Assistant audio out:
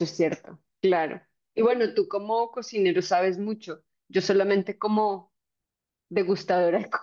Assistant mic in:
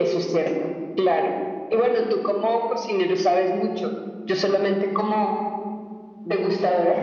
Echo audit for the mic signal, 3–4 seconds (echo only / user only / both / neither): echo only